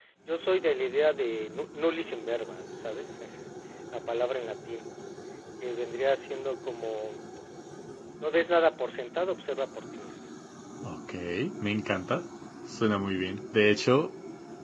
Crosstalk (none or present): none